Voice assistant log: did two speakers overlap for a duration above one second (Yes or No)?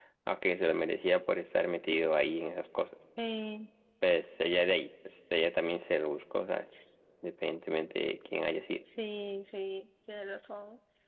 No